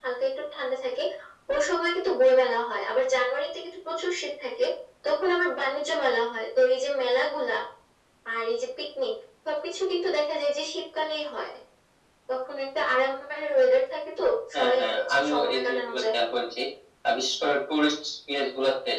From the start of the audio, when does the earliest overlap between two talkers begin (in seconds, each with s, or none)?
14.5 s